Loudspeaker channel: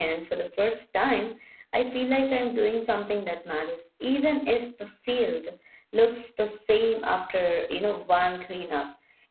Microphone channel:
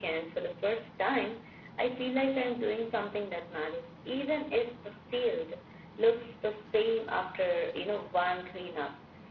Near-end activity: none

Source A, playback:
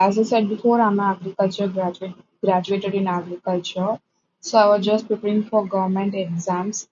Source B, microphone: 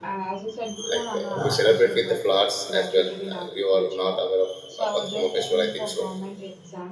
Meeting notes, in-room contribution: present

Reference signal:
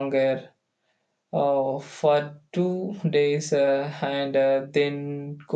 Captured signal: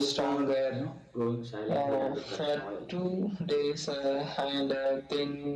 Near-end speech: present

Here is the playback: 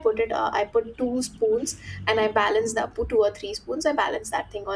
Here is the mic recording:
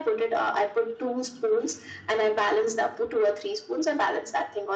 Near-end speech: none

